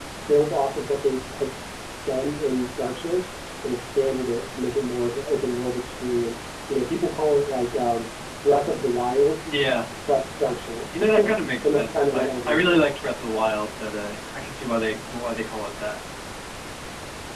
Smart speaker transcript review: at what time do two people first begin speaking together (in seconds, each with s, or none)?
10.9 s